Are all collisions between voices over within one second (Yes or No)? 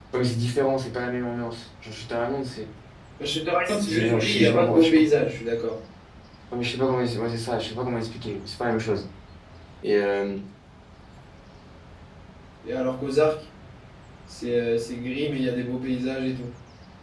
No